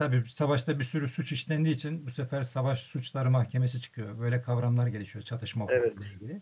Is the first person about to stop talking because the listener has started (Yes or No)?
No